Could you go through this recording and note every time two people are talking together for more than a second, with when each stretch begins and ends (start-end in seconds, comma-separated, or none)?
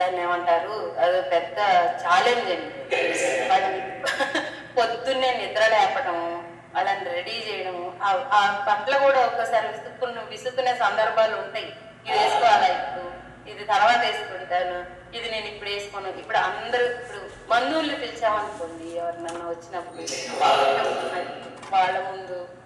none